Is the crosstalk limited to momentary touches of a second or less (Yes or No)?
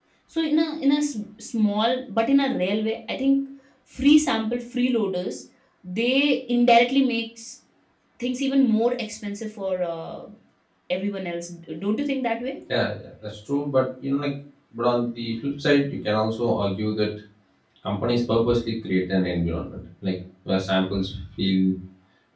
Yes